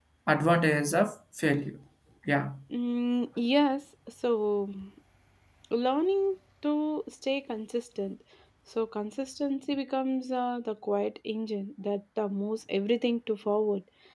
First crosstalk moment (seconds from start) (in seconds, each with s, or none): none